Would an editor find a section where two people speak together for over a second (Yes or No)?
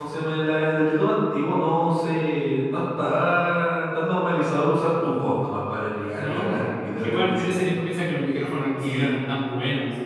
Yes